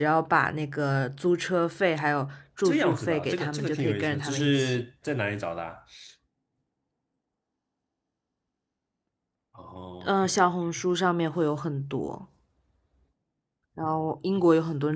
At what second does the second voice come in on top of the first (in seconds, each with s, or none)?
2.6 s